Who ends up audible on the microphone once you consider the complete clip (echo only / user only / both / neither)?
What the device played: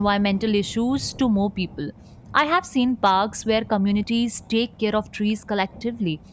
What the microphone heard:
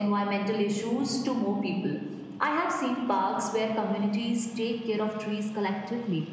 echo only